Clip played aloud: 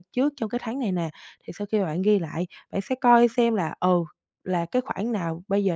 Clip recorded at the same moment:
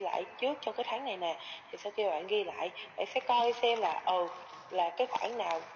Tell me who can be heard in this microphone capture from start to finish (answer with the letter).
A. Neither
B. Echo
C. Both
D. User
B